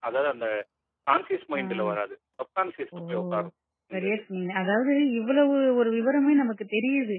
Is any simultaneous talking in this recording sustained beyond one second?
No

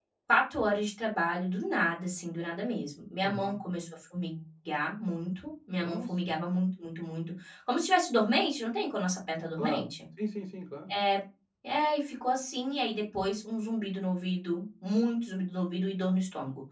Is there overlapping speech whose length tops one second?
No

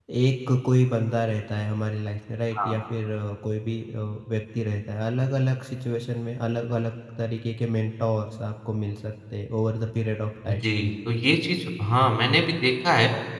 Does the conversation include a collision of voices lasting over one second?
No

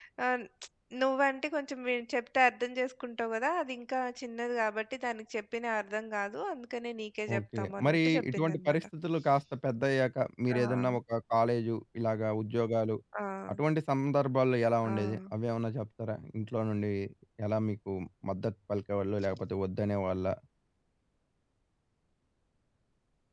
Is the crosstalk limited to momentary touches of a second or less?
No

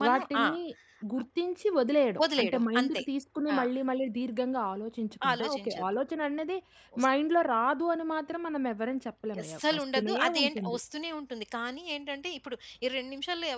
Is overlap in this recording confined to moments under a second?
No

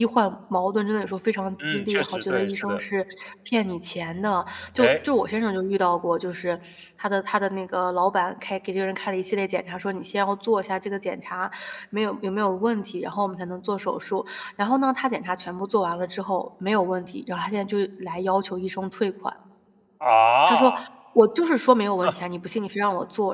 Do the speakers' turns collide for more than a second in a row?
Yes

